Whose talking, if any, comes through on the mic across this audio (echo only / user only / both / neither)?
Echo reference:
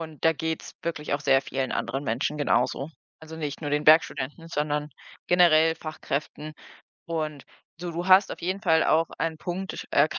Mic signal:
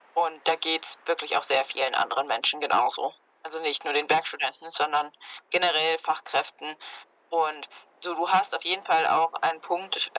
echo only